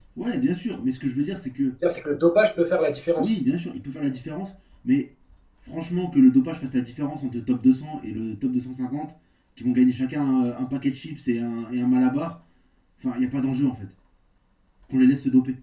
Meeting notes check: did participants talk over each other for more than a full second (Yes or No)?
No